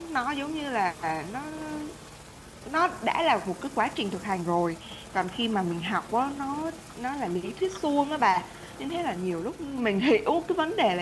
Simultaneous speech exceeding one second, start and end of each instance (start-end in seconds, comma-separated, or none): none